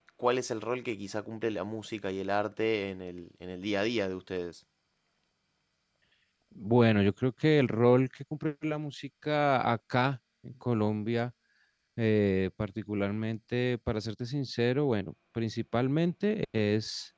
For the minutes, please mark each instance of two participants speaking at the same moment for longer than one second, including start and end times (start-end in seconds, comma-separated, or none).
none